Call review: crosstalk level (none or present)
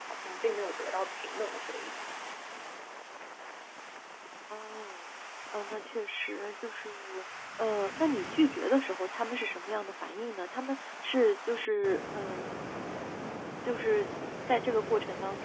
none